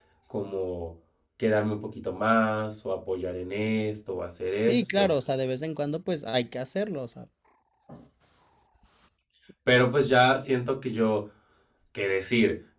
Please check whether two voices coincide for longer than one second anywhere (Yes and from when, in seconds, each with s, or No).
No